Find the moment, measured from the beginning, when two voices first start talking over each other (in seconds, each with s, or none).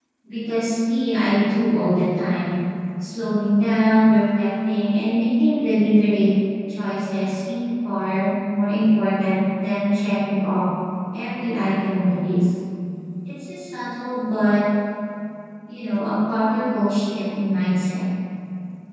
none